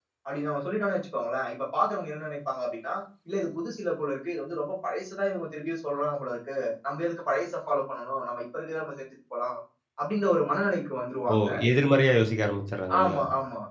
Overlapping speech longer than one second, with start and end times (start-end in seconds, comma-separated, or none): none